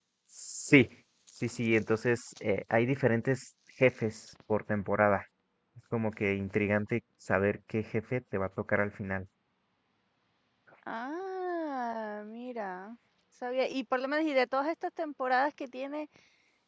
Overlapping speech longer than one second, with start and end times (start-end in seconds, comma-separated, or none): none